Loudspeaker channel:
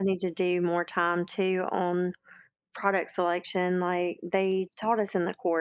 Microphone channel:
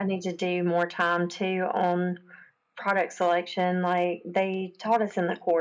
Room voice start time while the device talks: none

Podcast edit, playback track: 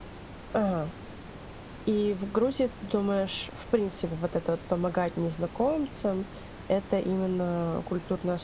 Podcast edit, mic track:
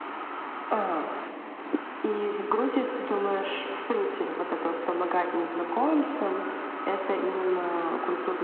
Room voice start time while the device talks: none

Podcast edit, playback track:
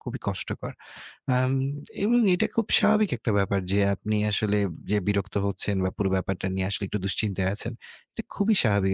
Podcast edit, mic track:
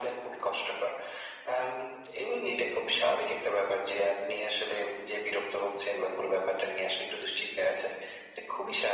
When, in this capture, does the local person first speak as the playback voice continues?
none

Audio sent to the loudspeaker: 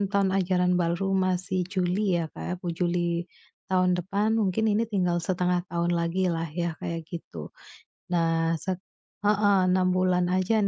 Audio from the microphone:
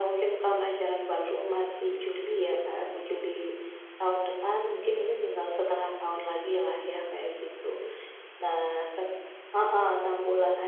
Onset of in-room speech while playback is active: none

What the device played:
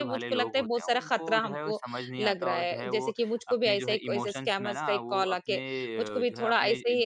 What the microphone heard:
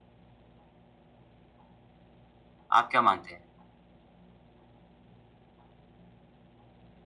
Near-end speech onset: 3 s

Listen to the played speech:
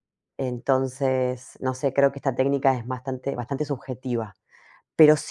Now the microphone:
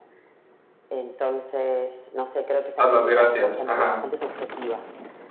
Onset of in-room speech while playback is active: 3 s

